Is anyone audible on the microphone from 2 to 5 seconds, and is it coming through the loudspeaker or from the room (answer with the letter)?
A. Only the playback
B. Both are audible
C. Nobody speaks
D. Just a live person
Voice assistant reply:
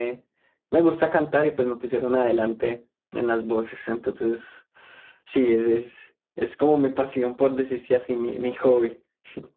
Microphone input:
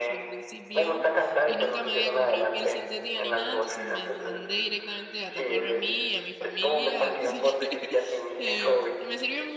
B